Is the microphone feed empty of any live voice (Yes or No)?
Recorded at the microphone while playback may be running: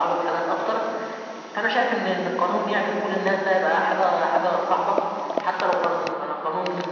Yes